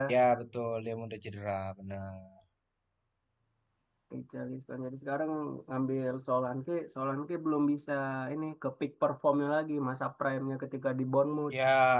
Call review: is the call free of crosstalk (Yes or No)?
Yes